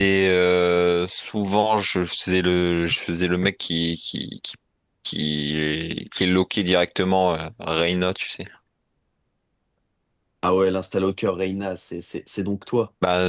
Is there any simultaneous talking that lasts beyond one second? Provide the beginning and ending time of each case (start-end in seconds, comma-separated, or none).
none